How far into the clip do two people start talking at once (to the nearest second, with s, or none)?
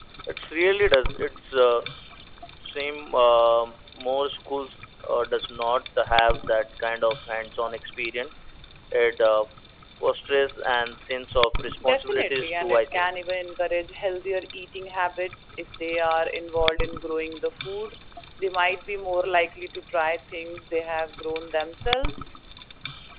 12 s